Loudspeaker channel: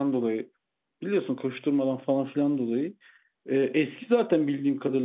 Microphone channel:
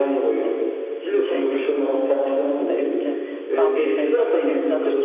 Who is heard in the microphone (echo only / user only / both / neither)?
both